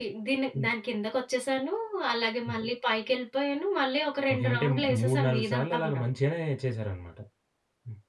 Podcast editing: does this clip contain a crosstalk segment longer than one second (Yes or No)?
Yes